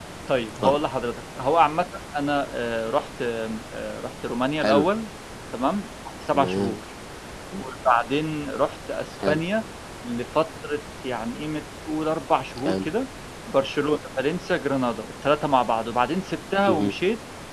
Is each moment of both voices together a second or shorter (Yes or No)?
Yes